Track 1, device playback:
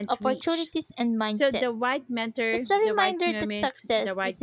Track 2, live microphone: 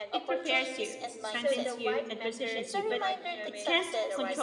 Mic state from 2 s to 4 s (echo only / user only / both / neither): both